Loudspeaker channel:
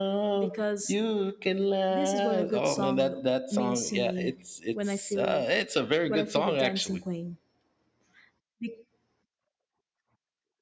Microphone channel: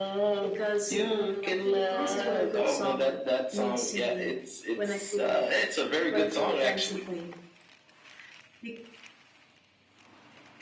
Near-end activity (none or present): present